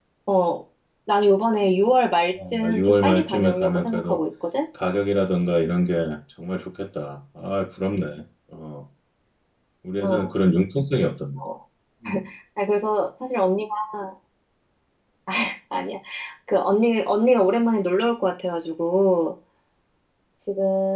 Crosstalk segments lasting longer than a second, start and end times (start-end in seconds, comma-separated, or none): 2.5-4.2